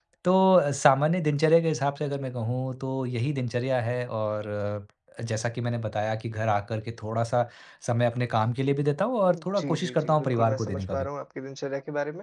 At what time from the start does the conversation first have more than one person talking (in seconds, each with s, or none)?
9.2 s